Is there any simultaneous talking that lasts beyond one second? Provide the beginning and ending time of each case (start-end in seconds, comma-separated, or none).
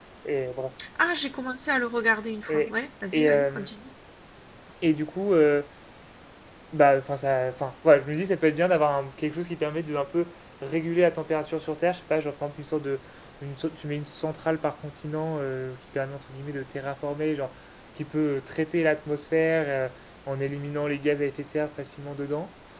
none